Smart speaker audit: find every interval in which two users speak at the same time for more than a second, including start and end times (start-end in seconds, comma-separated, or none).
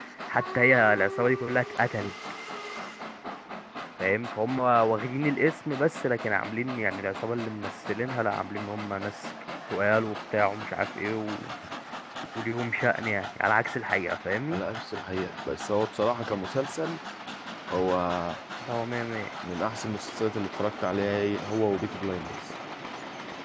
none